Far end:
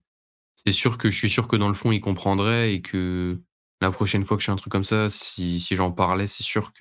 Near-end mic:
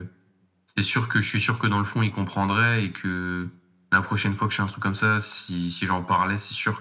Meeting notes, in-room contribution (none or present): none